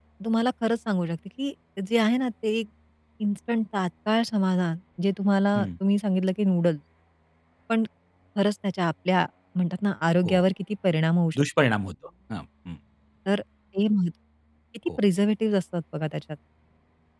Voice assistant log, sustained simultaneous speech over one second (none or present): none